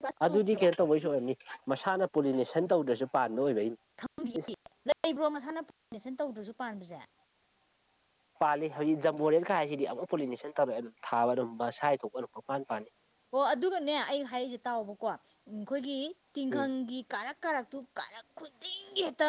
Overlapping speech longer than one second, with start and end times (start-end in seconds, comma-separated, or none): none